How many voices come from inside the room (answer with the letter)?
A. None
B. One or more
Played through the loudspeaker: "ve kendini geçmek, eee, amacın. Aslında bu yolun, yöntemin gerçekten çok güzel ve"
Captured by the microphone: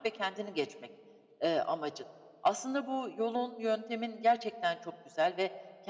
A